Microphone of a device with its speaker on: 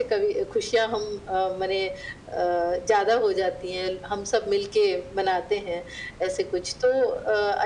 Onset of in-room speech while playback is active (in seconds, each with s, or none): none